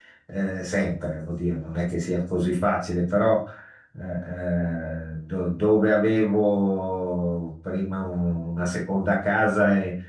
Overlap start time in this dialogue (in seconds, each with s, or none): none